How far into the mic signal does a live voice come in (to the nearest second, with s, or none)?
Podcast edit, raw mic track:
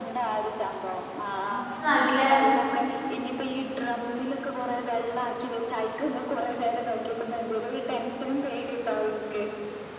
1 s